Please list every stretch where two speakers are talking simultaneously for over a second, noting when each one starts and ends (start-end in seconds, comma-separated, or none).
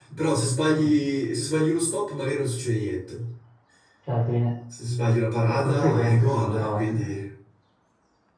5.5-7.0